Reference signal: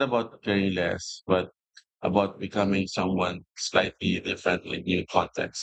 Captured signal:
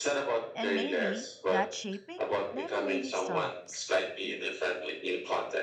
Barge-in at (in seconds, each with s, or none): 0.5 s